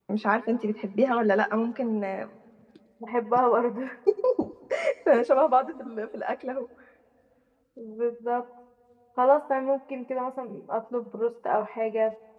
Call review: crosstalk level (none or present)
none